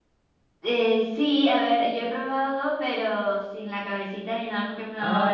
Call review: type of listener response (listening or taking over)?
taking over